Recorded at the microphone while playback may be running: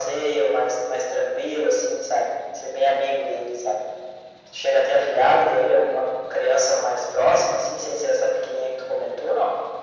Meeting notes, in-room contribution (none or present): none